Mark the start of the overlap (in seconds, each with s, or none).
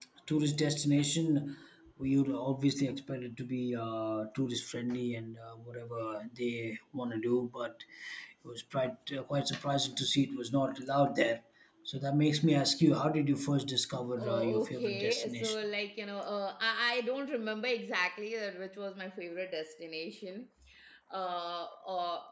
14.2 s